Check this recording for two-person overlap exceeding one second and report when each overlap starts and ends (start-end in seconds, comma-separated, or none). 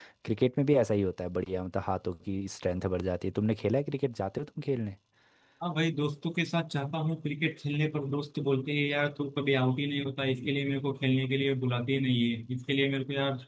none